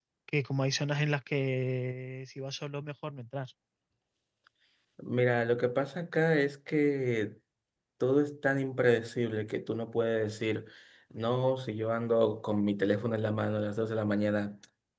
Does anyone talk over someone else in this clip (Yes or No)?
No